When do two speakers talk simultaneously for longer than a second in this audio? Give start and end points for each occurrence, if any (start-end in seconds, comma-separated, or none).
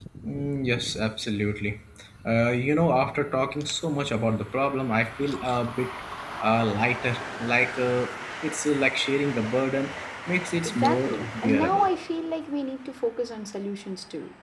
10.6-11.9